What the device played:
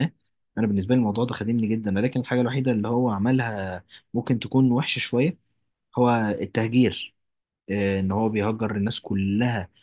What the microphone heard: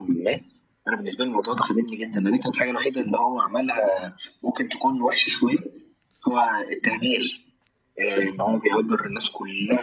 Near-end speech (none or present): none